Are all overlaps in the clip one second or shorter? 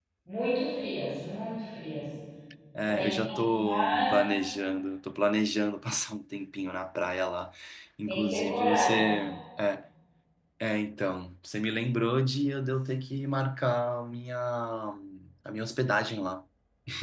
No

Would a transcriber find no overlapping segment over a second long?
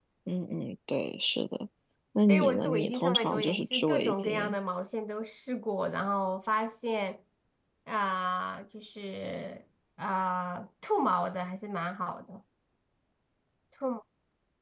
No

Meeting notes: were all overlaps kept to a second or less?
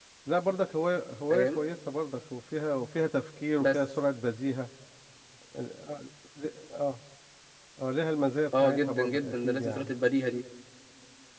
No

